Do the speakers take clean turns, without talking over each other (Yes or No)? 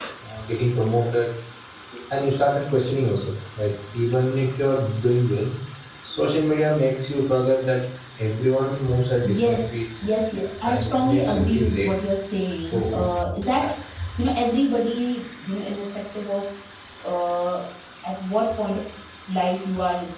No